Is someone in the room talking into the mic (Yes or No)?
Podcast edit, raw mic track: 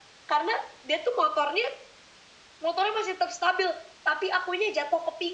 No